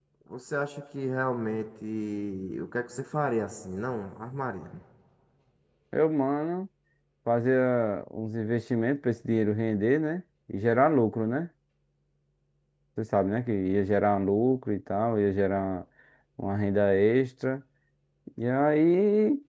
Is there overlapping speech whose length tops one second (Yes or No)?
No